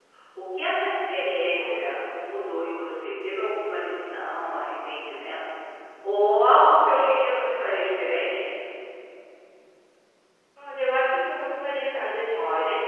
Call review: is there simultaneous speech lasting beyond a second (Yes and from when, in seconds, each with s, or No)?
No